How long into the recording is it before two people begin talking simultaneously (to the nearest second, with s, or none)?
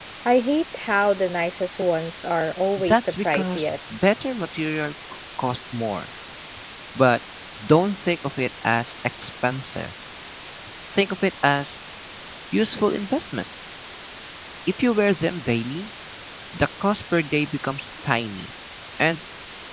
3 s